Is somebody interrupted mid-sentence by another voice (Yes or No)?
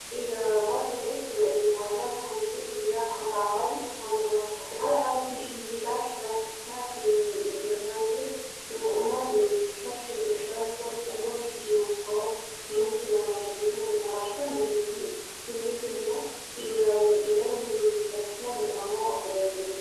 No